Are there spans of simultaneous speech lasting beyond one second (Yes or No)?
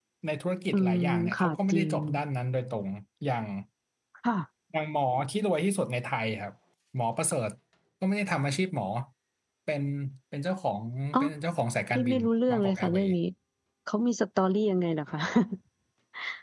Yes